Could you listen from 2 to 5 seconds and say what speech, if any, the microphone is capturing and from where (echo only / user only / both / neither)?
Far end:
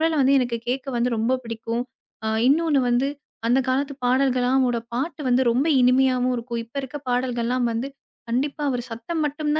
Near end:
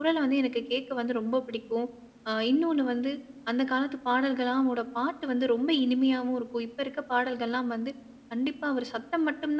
echo only